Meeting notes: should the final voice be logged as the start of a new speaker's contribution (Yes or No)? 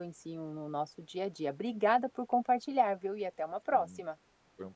Yes